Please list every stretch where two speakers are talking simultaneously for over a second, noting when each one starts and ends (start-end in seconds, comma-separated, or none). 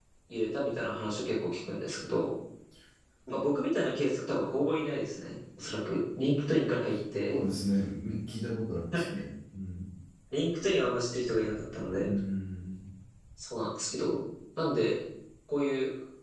none